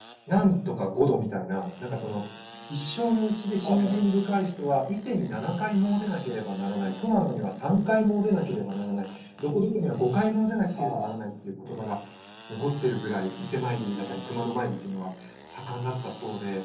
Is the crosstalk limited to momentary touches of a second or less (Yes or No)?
Yes